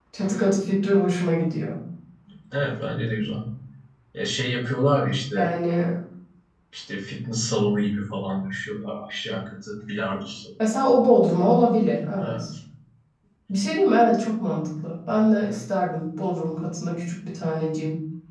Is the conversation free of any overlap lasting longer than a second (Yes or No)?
Yes